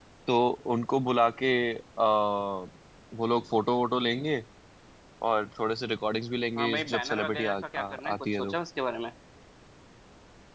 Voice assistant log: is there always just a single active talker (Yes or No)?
No